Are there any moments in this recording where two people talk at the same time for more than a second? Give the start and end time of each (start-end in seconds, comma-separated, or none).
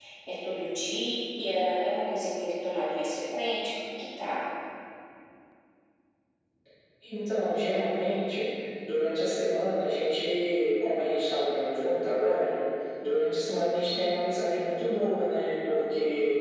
none